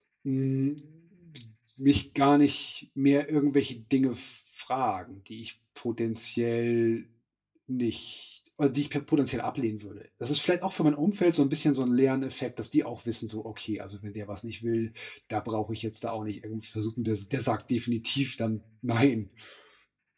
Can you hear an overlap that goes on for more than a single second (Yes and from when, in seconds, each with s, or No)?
No